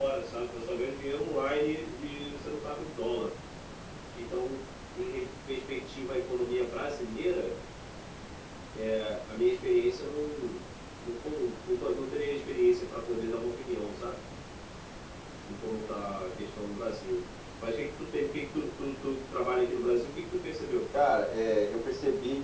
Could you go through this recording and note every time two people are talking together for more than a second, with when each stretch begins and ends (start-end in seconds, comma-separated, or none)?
none